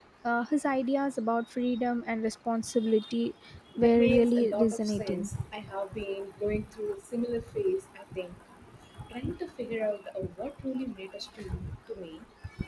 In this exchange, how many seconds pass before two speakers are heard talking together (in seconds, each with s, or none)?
3.8 s